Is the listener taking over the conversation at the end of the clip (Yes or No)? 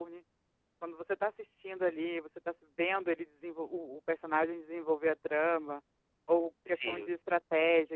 No